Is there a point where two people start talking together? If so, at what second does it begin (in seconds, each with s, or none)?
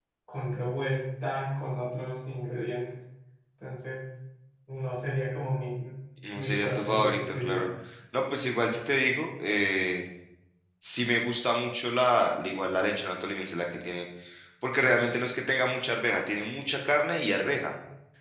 6.3 s